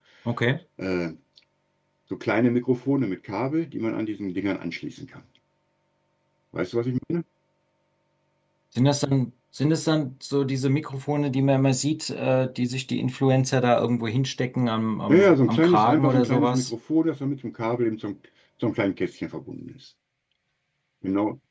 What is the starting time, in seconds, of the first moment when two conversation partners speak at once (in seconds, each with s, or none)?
15.1 s